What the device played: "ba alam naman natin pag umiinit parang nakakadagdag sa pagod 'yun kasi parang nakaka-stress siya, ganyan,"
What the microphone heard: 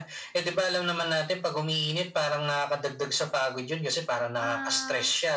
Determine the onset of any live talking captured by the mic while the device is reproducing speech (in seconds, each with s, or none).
4.4 s